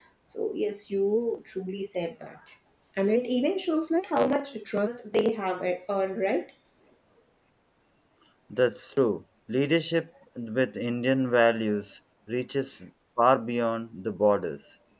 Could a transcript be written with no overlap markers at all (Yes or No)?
Yes